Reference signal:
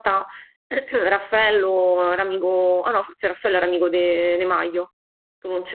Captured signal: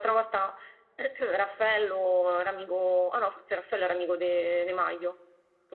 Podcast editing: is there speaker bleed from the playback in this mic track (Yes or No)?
Yes